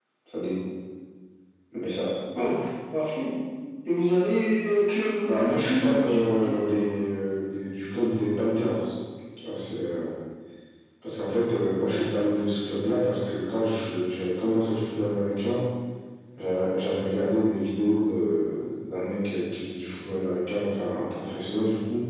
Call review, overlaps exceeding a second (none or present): present